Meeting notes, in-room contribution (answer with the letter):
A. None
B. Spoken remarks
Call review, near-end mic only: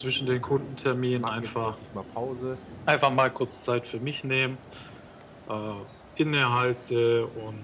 B